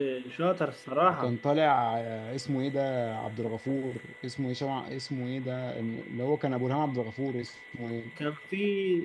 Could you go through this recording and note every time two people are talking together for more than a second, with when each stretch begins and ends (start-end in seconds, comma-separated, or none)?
none